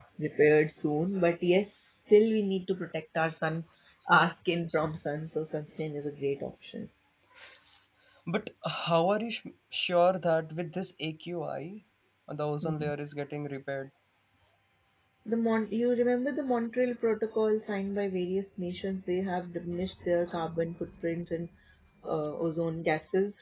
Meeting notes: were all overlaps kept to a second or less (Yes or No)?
Yes